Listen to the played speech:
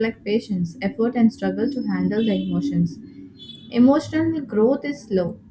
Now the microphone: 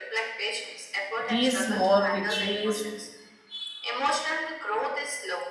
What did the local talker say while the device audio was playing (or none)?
these small victories,